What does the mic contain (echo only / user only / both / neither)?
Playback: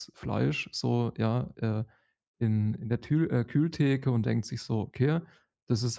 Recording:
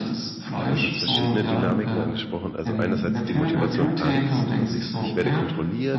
both